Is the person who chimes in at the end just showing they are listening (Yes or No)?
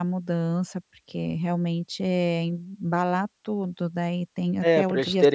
No